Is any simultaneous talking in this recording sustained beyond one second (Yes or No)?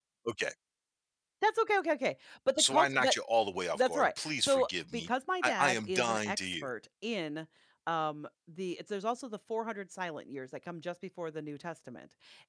Yes